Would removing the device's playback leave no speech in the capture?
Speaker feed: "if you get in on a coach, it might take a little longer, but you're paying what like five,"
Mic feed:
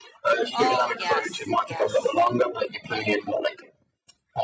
No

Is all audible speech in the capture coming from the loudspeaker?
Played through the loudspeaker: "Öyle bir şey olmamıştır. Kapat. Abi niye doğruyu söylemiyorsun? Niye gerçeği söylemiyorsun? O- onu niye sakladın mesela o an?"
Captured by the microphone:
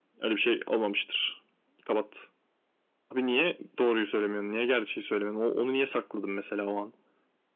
Yes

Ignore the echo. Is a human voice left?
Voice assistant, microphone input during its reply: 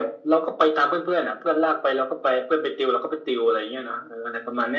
No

